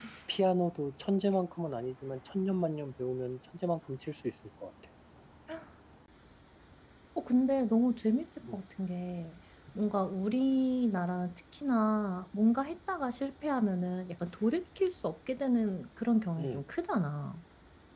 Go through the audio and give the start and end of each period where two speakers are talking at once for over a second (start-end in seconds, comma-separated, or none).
none